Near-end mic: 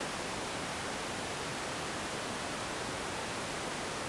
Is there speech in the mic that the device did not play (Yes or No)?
No